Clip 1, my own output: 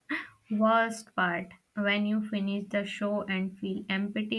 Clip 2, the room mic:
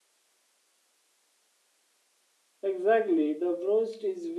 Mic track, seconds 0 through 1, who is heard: neither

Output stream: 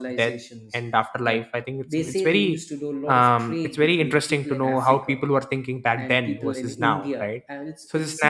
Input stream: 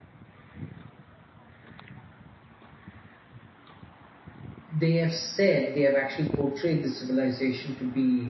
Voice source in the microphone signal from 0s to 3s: neither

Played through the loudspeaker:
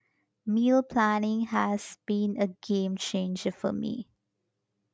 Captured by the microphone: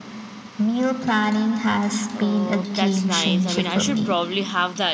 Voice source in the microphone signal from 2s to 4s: both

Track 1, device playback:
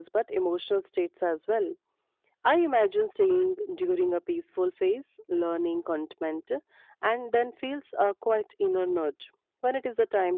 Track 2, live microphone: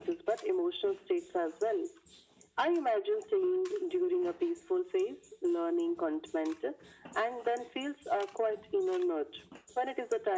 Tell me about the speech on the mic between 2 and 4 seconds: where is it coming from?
echo only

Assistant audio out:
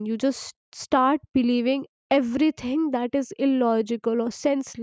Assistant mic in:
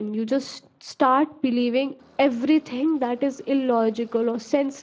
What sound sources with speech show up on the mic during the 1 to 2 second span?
echo only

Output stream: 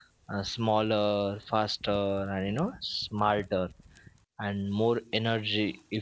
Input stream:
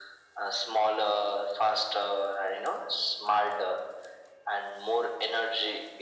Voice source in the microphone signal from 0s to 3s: echo only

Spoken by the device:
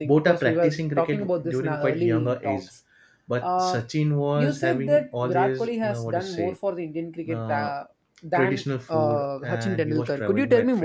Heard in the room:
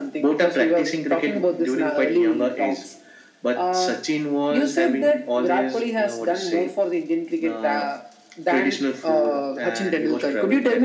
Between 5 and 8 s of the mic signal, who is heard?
echo only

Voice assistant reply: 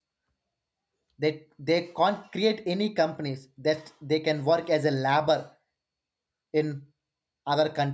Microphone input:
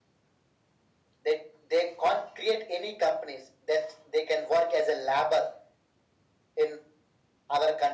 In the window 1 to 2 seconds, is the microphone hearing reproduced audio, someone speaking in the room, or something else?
echo only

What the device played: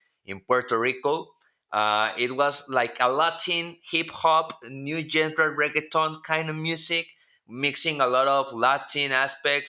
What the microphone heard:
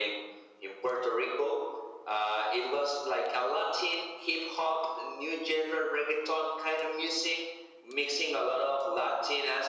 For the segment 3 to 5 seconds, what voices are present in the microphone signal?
echo only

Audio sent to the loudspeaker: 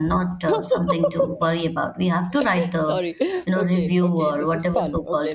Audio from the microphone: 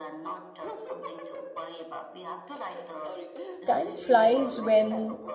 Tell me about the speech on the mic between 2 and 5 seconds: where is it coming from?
both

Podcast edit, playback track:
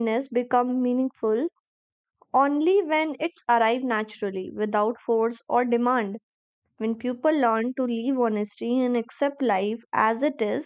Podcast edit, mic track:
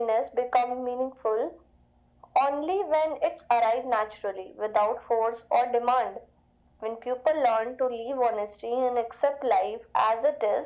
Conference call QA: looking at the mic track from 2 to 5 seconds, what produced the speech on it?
echo only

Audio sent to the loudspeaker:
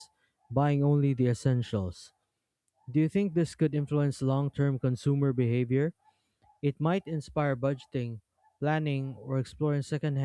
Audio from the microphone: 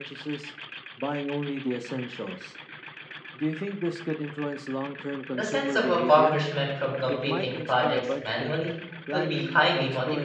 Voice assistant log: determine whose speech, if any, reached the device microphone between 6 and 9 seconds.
both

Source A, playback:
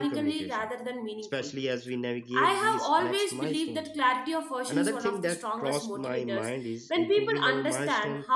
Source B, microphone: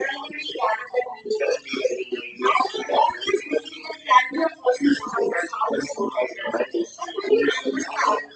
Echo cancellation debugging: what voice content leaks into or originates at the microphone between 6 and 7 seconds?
echo only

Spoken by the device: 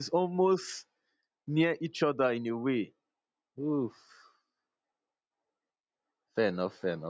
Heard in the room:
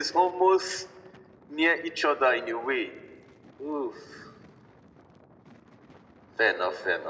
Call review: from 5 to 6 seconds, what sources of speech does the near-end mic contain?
neither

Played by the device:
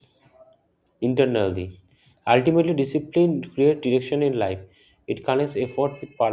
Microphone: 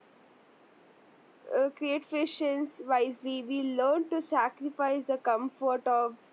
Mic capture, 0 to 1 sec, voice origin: neither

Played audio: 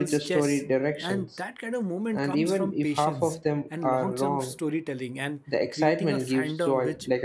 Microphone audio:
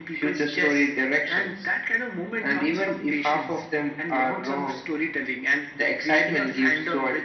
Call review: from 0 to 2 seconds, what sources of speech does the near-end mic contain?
echo only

